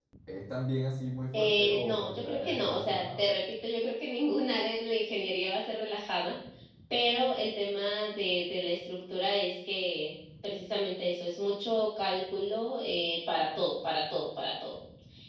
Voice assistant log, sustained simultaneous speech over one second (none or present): present